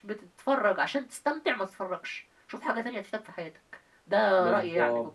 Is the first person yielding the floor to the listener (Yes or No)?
Yes